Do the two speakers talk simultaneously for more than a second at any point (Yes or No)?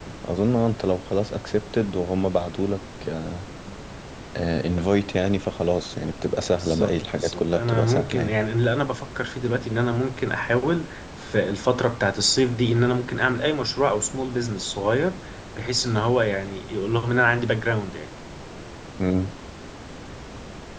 Yes